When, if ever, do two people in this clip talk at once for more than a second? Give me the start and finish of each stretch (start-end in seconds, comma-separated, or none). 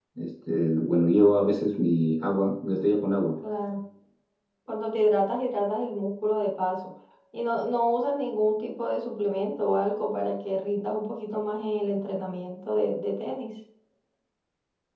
none